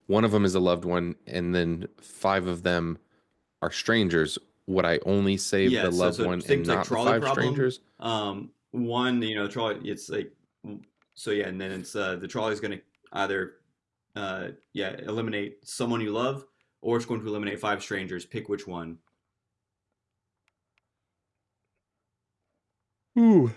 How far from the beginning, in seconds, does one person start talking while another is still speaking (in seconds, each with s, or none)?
5.6 s